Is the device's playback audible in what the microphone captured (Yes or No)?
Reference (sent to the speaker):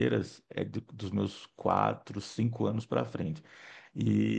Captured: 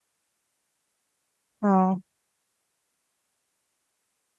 No